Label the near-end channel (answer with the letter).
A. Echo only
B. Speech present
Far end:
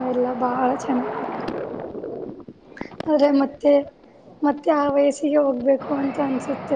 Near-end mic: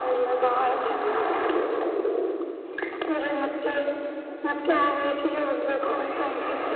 A